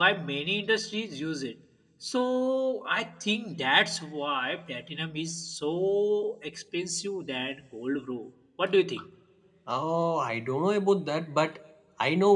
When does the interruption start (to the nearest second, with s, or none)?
none